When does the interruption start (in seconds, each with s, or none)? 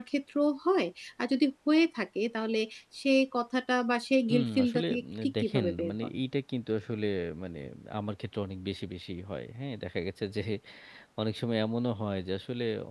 4.3 s